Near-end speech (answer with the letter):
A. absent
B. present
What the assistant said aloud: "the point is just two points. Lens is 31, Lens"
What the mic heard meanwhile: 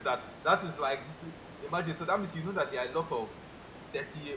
B